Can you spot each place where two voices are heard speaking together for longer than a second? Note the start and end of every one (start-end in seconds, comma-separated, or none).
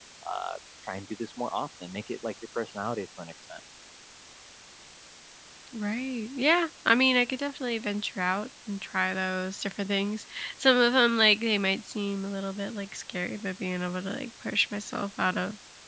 none